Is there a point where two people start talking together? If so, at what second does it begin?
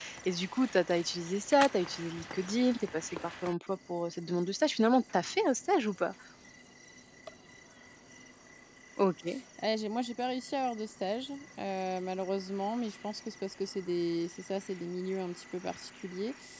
none

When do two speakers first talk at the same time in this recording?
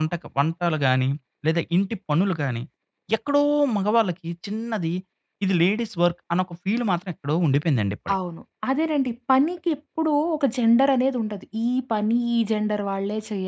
none

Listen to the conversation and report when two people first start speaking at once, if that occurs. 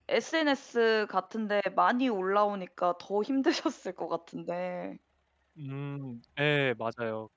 none

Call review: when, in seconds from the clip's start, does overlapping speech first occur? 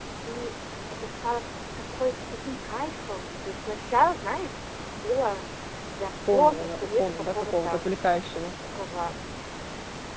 6 s

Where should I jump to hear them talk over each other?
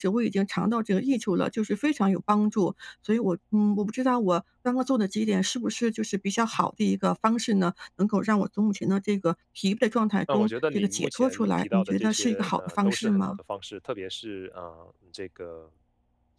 10 s

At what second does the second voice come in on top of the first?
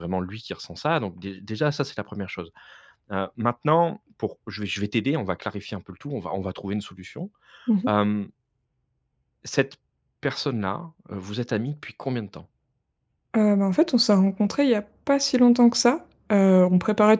none

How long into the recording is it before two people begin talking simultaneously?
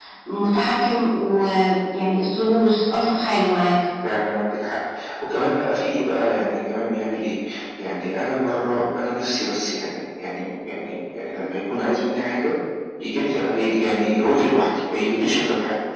none

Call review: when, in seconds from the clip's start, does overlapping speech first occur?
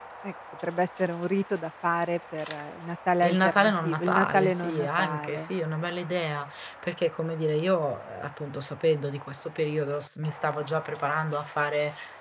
3 s

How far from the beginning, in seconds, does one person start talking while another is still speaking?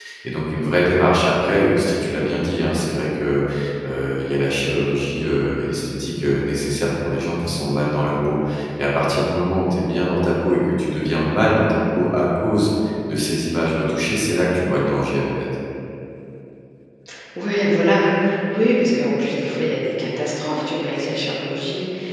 none

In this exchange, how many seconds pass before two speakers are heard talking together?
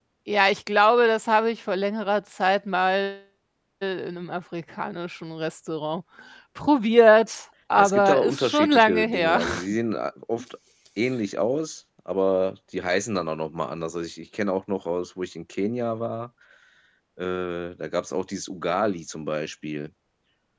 8 s

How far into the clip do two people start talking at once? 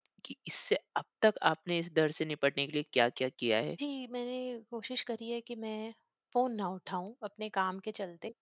none

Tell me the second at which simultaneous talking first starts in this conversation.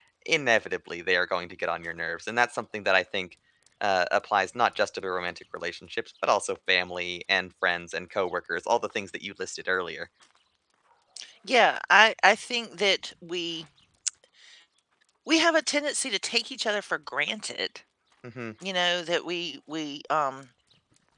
none

